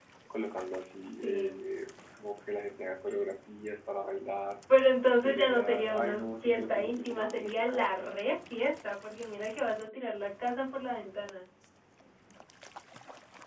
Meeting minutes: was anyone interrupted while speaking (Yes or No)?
Yes